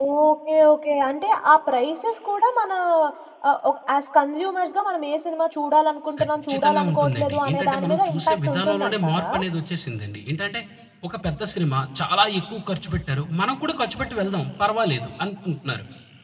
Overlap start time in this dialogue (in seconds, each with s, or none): 6.2 s